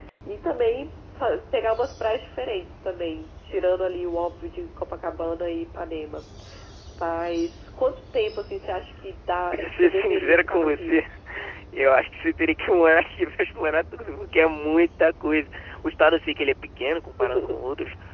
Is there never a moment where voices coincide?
No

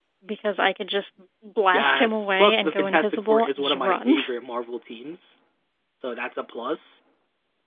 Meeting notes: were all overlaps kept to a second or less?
No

